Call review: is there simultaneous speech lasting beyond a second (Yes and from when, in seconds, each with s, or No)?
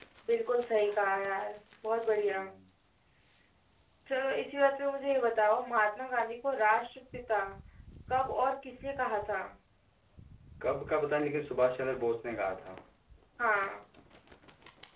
No